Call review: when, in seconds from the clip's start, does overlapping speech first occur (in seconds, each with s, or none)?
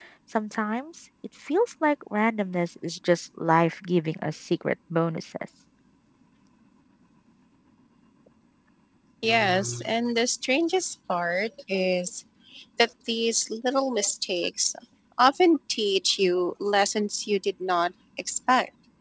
none